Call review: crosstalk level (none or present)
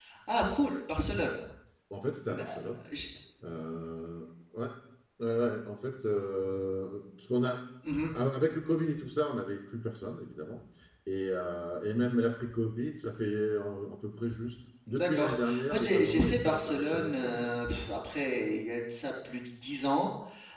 present